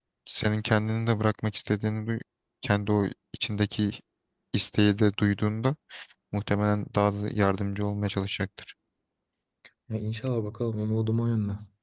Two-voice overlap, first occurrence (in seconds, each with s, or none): none